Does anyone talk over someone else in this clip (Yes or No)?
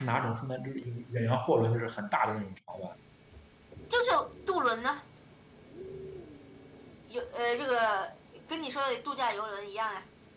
No